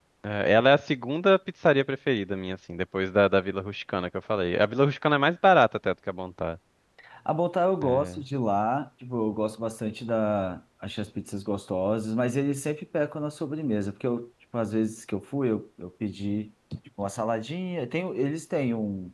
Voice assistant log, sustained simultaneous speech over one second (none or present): none